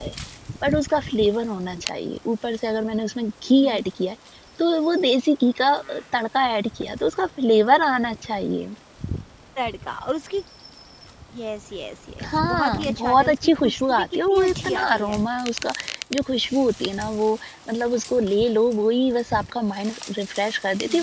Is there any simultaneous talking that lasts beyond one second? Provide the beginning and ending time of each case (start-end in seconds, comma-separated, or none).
12.2-15.2